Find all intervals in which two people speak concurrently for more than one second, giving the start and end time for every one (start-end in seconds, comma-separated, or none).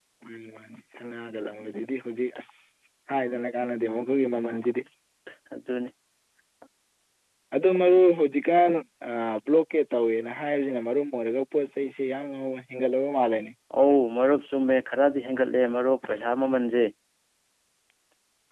none